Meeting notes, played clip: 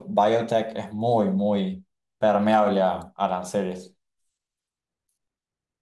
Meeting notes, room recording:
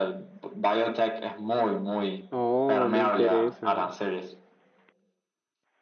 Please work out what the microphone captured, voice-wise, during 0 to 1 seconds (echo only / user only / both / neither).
echo only